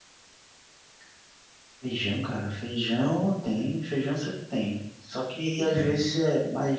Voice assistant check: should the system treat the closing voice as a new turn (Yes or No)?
No